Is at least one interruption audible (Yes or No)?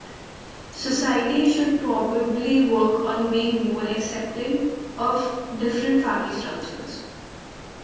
No